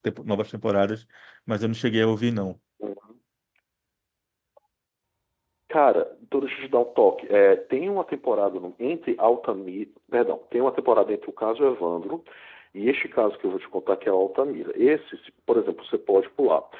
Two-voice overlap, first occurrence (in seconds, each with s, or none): none